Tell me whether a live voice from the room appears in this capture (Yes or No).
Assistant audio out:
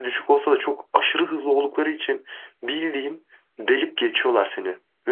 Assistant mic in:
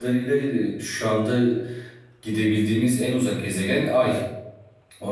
Yes